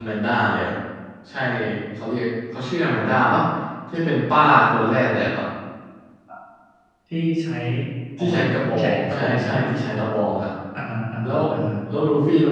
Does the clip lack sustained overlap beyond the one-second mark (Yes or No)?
No